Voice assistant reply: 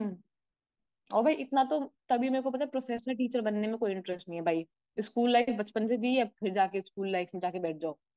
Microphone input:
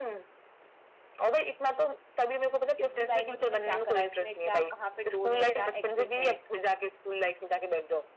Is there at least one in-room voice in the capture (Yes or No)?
Yes